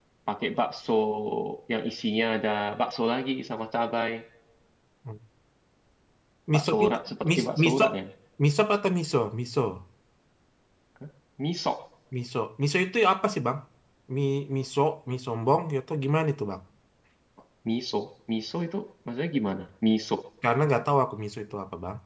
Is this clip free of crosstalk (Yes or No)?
No